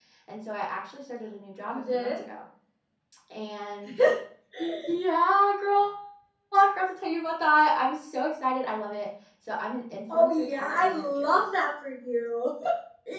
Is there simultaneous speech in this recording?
Yes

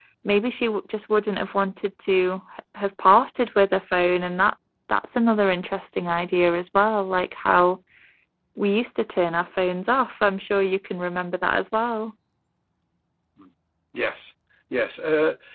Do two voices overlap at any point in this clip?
No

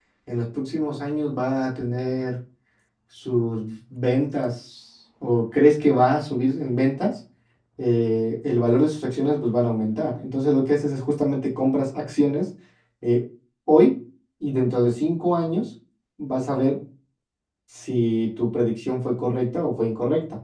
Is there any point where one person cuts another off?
No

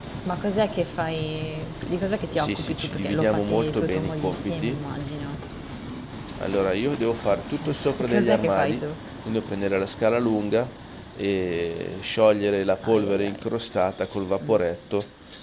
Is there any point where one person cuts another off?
Yes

